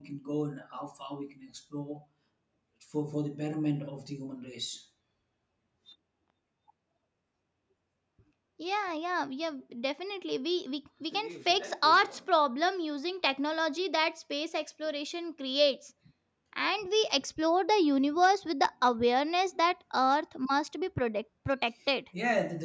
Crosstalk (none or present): none